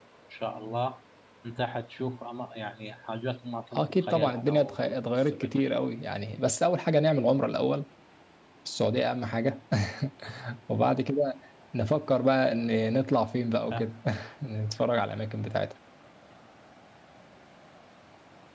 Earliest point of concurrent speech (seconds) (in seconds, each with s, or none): 3.8 s